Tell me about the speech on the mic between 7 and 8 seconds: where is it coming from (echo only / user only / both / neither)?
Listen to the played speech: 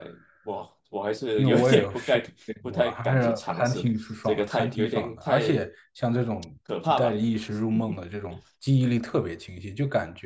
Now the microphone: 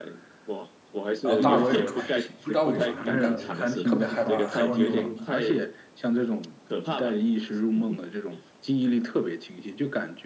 echo only